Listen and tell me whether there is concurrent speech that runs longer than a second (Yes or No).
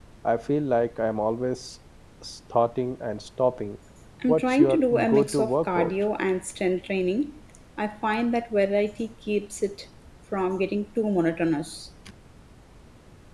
Yes